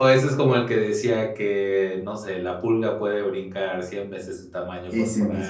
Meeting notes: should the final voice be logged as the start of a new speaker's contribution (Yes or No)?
No